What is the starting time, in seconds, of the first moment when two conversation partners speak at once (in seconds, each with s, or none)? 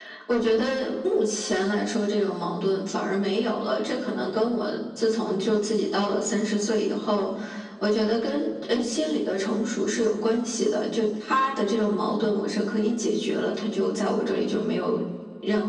none